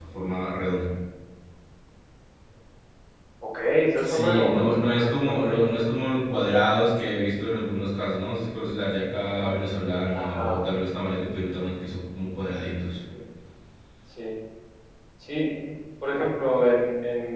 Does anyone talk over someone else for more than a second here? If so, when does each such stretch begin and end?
4.0-5.7

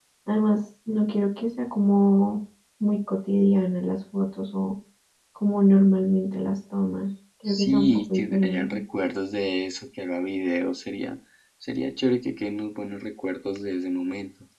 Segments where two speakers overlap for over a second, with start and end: 7.5-8.8

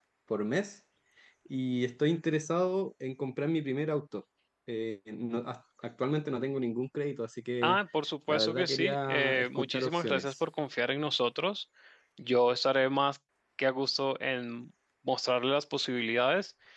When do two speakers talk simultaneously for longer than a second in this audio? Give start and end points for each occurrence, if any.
8.3-10.3

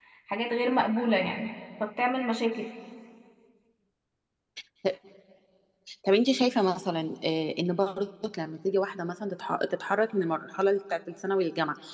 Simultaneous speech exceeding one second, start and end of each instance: none

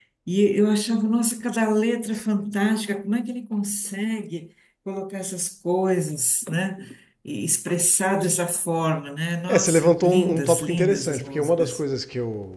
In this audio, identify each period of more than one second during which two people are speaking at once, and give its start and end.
9.5-11.8

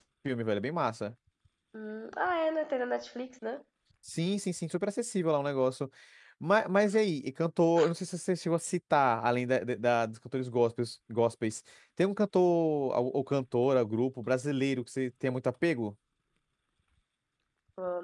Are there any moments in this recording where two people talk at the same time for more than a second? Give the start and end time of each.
none

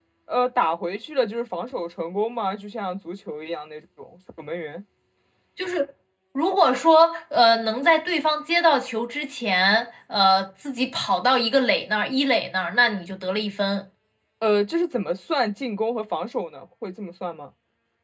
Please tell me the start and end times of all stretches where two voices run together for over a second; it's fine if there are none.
none

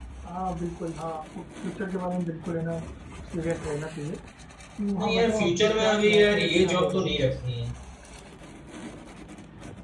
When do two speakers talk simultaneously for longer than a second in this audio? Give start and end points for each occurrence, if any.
5.0-7.2

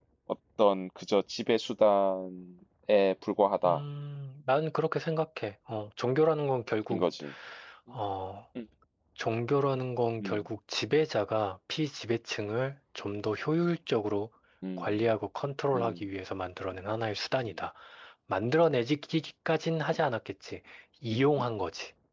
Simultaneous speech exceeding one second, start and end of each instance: none

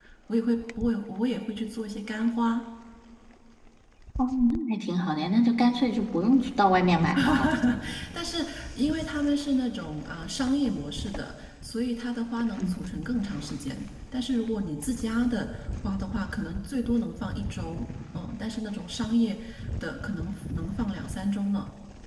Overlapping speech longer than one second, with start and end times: none

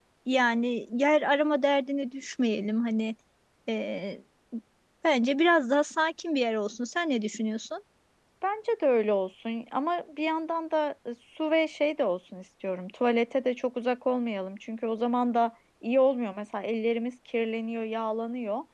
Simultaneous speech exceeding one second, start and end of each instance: none

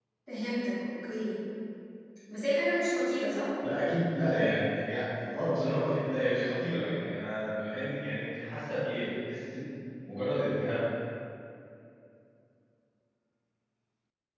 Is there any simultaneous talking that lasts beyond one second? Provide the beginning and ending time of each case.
none

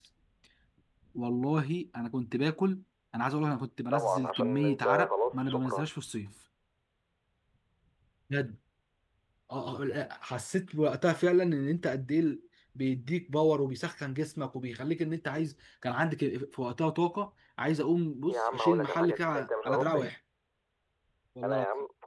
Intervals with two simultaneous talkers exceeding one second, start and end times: 3.9-5.9, 18.3-20.1

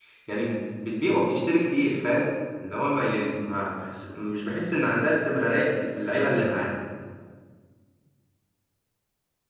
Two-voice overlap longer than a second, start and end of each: none

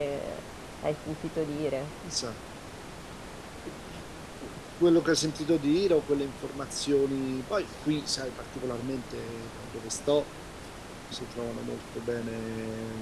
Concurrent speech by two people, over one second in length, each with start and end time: none

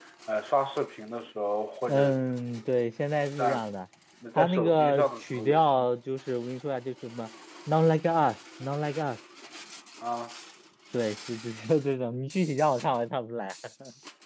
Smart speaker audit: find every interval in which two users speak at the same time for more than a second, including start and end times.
4.4-5.8

